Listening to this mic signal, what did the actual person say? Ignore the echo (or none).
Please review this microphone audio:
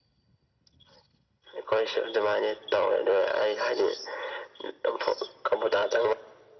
none